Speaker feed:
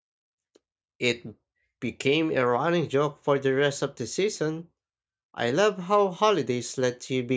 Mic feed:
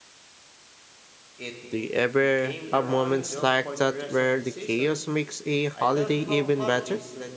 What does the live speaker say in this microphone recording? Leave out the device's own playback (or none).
Do you ever have moments like that where the chaos makes a holiday even better?